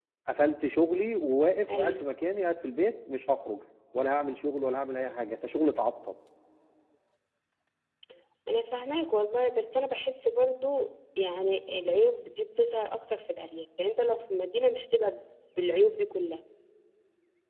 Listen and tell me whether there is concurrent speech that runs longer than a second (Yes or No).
No